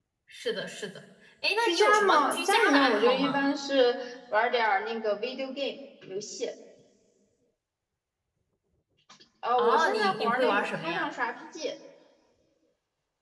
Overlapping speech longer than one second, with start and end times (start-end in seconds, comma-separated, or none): 1.6-3.4, 9.6-11.1